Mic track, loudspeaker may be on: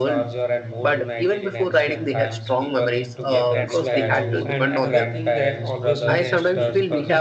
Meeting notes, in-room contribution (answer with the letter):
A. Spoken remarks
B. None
A